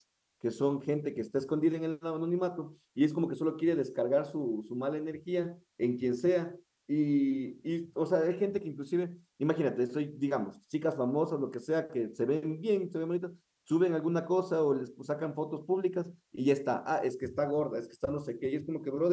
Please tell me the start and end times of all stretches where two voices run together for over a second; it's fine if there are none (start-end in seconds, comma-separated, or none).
none